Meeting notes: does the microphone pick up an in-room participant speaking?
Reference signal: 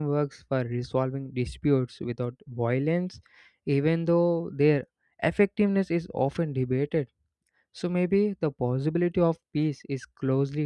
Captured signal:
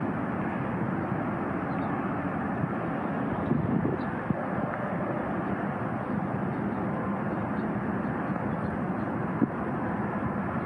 No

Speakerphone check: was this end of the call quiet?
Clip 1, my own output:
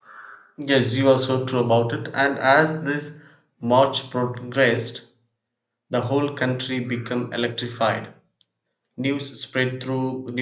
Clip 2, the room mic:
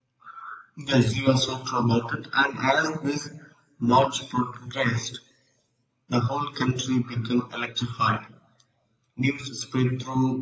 Yes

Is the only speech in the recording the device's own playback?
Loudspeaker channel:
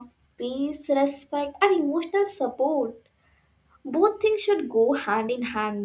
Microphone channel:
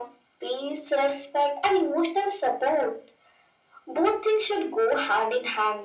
Yes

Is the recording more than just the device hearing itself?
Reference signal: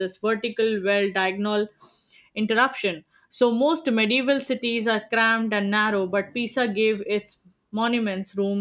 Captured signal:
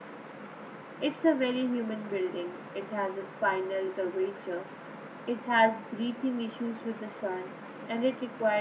Yes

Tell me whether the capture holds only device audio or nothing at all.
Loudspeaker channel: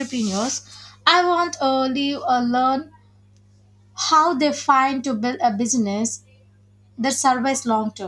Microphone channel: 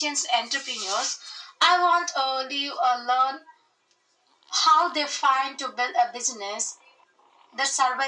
Yes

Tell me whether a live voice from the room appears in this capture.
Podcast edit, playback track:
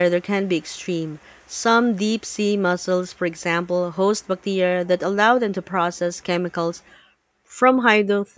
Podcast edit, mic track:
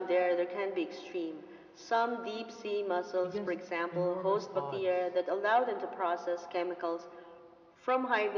Yes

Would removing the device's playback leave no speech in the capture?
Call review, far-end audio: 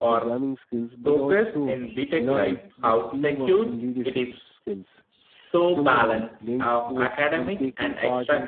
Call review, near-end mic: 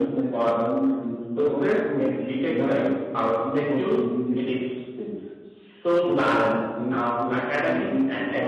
Yes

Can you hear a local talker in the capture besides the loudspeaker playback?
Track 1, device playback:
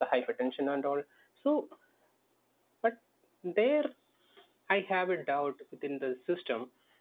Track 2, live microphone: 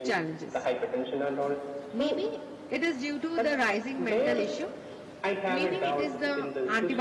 Yes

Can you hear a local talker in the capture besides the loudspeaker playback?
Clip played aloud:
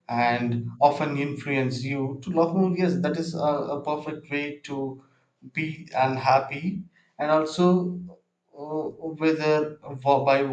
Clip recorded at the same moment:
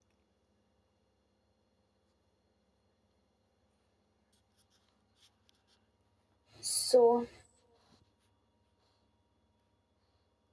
Yes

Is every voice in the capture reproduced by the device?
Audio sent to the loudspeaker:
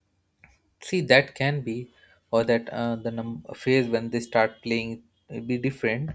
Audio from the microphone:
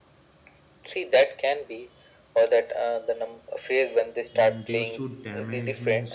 No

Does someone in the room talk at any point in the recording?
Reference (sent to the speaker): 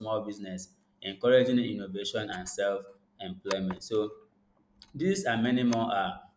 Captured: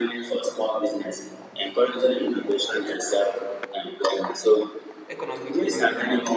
Yes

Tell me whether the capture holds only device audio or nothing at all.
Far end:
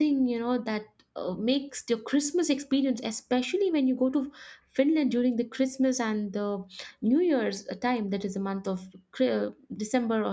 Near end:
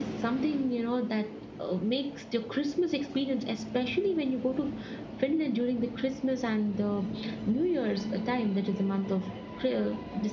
Yes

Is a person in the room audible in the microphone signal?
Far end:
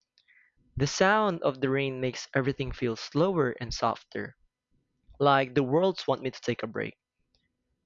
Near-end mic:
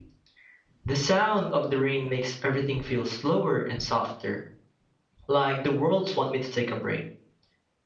No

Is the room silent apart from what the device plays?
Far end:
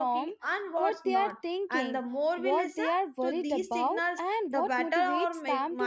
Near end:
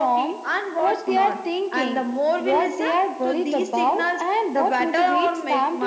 Yes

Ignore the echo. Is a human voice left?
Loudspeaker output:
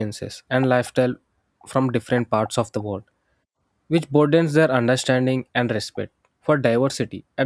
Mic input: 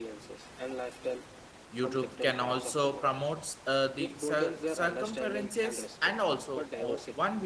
Yes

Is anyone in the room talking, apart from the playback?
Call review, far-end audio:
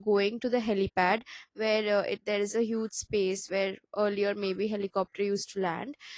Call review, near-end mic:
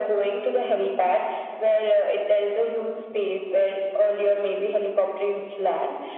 No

